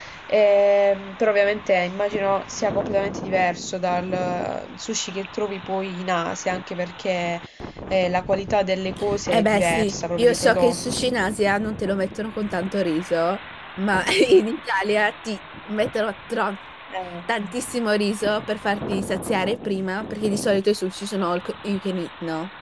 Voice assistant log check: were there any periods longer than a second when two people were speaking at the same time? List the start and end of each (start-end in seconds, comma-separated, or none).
9.3-11.1